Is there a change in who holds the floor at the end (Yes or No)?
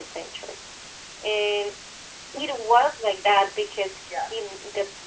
No